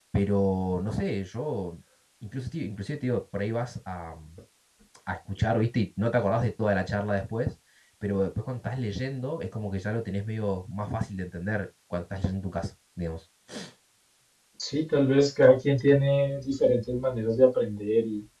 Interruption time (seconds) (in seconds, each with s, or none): none